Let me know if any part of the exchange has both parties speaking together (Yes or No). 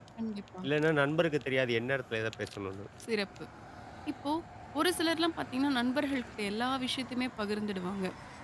No